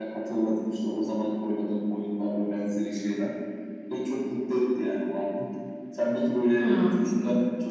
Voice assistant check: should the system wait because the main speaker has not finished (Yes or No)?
Yes